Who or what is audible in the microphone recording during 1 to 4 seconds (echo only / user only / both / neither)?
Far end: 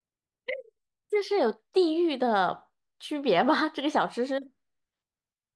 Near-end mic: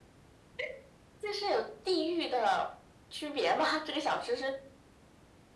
echo only